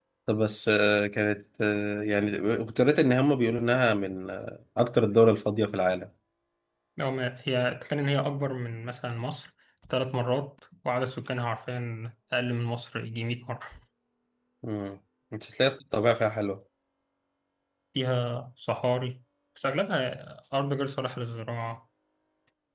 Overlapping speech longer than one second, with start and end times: none

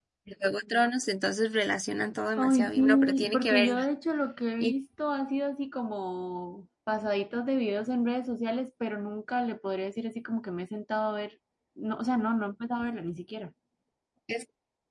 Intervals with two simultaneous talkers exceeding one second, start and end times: 2.4-3.9

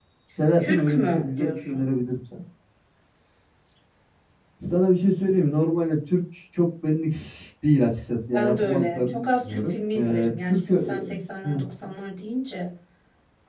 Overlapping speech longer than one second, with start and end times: 0.6-1.9, 8.3-11.1

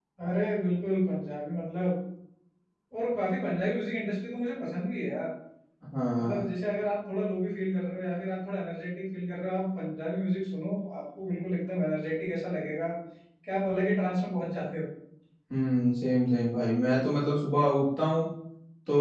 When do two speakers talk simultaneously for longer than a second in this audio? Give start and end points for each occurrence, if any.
none

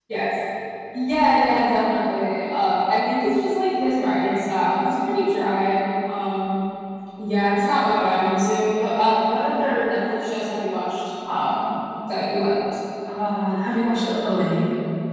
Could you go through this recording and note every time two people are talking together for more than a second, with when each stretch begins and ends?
none

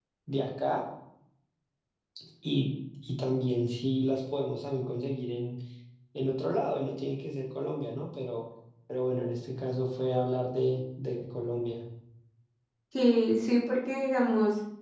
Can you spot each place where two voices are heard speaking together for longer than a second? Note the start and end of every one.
none

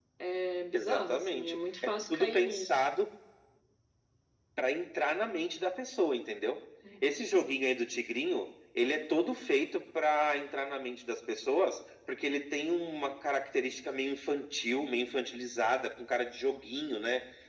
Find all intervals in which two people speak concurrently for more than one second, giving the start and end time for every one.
0.7-2.9

